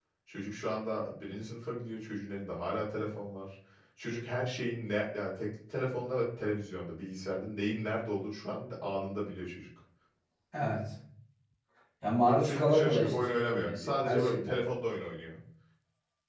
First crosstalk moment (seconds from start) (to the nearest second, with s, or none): 12 s